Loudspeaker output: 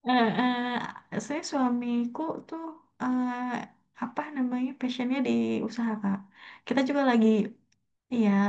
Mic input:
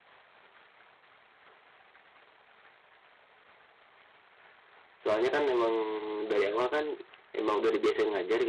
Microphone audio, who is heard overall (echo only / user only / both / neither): user only